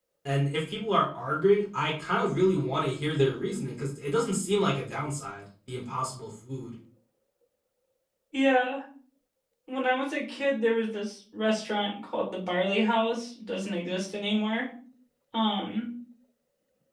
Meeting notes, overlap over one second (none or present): none